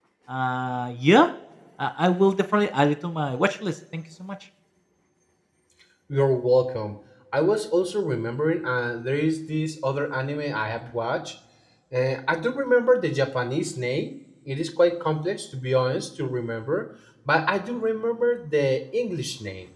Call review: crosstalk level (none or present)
none